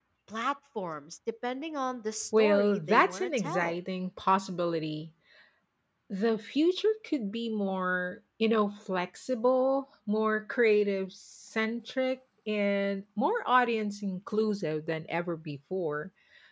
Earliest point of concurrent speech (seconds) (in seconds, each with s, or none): 2.3 s